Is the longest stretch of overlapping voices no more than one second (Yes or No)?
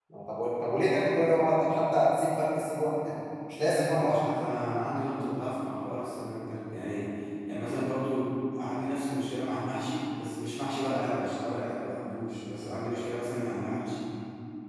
Yes